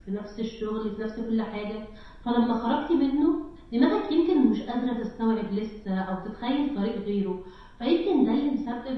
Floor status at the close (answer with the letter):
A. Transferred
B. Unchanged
B